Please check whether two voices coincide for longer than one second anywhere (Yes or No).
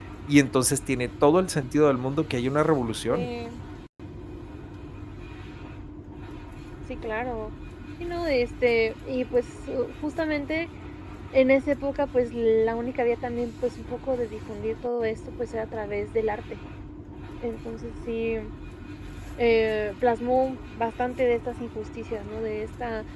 No